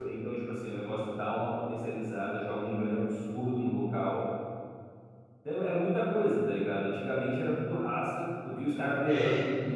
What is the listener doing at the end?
listening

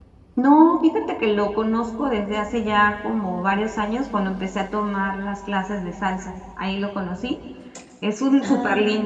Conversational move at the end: listening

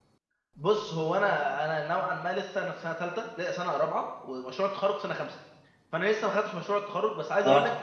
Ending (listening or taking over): listening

